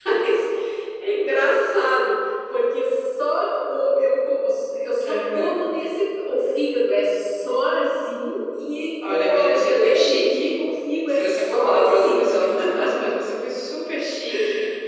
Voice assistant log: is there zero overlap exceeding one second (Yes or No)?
No